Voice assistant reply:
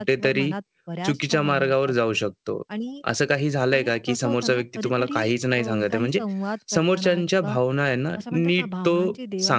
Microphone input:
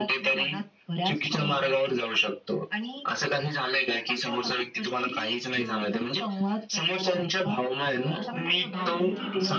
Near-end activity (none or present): present